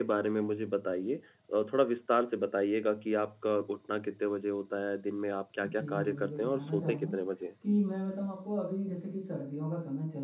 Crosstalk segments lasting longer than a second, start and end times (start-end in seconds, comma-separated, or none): 5.6-7.1